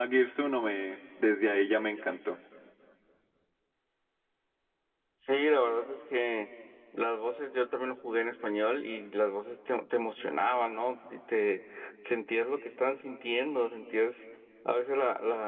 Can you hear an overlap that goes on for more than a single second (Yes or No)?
No